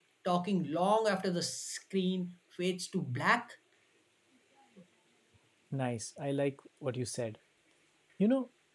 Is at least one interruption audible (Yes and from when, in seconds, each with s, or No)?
No